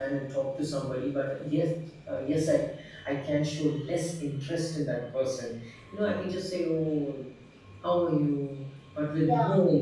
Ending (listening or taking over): listening